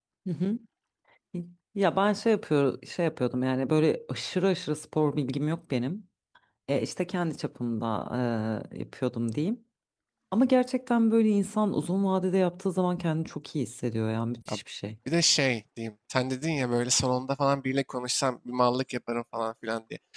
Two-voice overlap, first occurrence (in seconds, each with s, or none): none